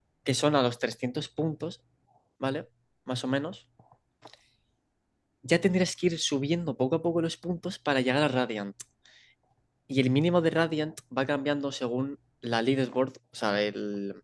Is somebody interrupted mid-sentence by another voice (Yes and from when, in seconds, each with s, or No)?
No